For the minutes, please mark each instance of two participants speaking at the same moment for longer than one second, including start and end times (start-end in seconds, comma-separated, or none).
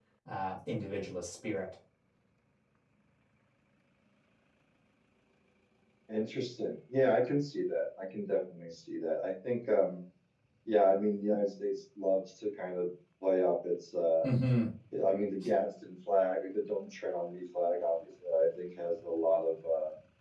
none